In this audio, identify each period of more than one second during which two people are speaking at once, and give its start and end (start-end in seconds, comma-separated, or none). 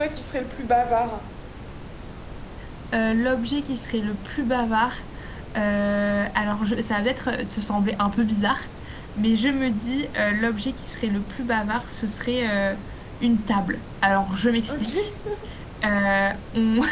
none